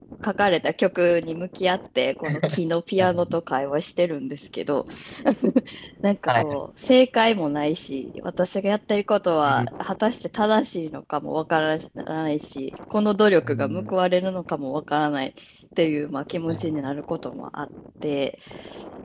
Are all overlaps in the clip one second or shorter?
Yes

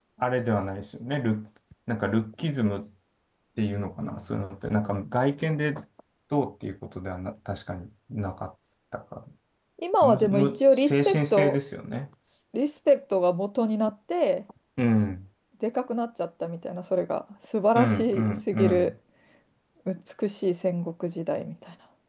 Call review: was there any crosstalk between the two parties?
Yes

